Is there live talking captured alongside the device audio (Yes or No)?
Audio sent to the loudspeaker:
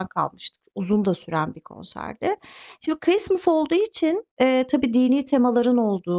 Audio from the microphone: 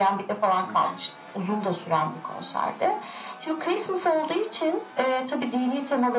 Yes